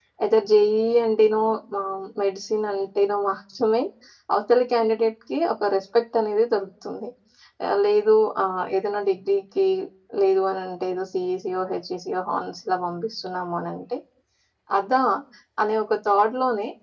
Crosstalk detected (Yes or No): No